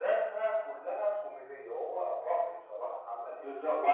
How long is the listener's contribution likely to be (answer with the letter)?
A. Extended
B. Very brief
A